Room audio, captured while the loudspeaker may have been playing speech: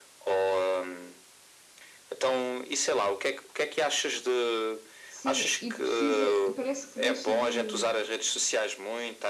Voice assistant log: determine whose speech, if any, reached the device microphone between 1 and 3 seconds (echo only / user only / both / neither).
echo only